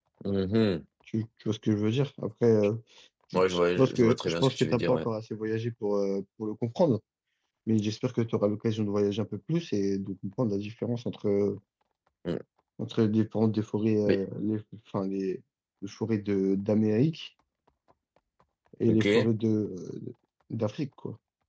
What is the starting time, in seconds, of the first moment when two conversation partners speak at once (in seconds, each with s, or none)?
3.4 s